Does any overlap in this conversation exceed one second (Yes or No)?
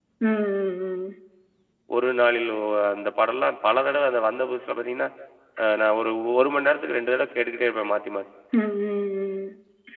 No